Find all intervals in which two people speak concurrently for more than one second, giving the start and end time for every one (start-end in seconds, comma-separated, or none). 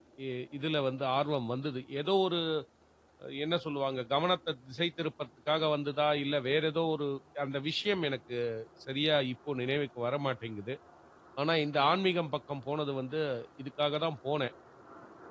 none